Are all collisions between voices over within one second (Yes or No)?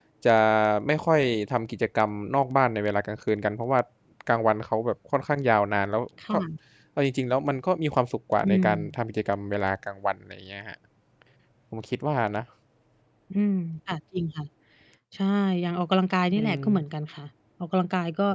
Yes